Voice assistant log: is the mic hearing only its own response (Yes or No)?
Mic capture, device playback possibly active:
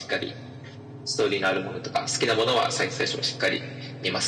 Yes